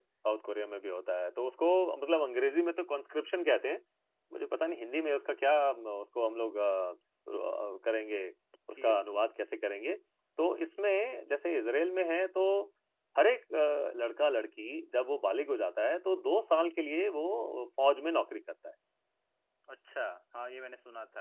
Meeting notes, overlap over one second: none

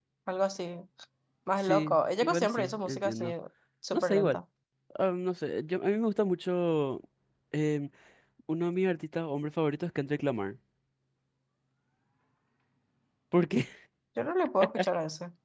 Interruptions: present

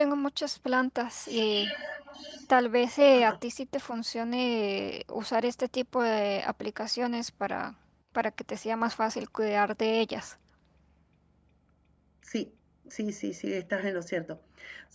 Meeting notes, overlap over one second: none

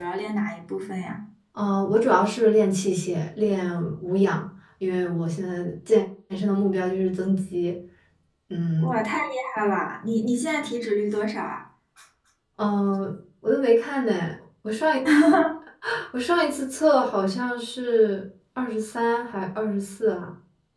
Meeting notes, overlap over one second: none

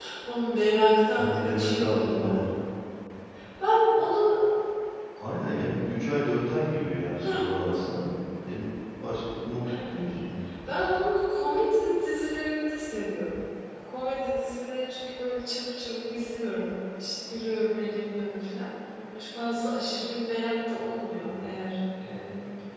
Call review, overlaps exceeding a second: present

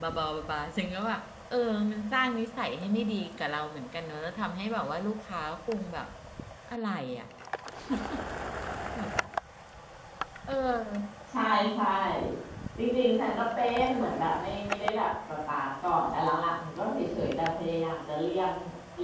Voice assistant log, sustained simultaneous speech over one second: none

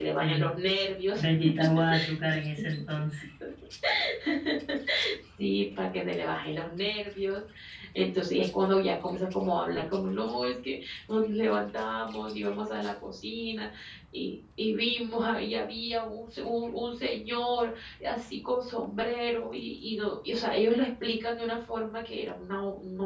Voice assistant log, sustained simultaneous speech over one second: none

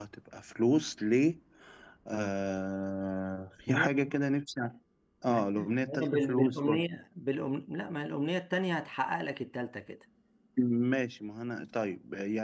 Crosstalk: present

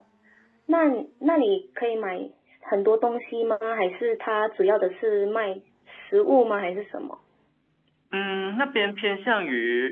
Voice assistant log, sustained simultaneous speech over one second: none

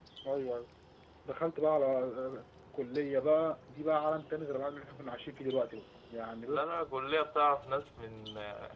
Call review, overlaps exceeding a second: none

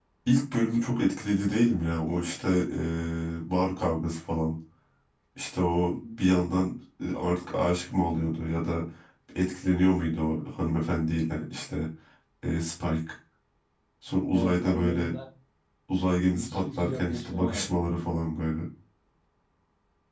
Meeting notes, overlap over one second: present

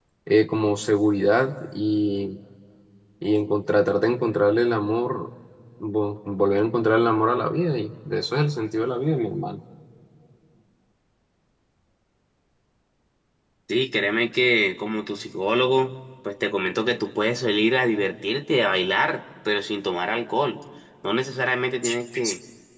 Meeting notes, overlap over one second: none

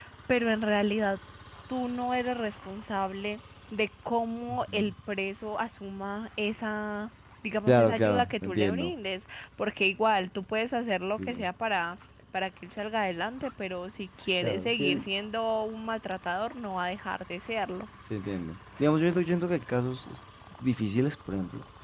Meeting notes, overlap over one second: present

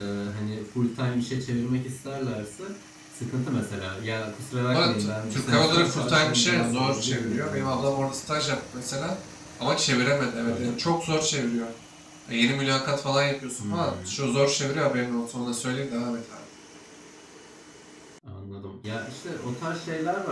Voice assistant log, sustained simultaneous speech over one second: present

